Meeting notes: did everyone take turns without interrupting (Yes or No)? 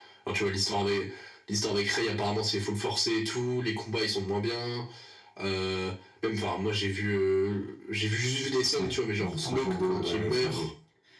No